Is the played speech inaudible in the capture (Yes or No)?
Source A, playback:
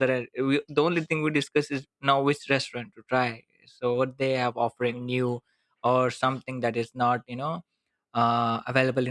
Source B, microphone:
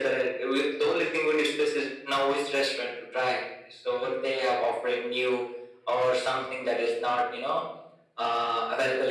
No